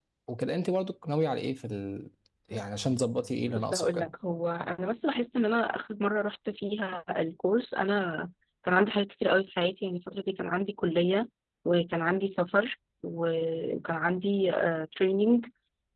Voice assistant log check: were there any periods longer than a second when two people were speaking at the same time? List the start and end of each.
none

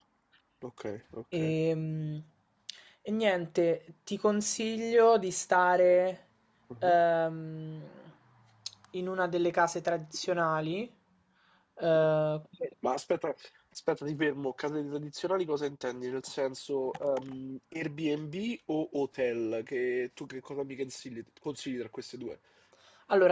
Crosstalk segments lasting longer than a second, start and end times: none

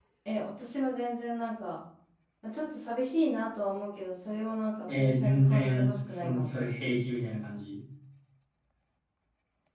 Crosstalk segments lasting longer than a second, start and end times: 5.0-6.6

